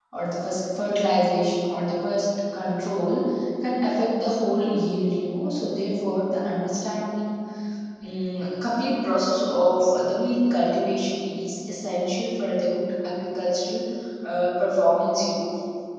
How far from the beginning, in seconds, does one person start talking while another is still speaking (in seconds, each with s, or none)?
none